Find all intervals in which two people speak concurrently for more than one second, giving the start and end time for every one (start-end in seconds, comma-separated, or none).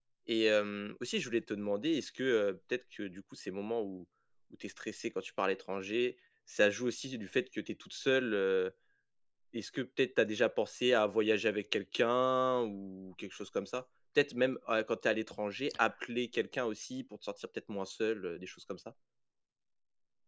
none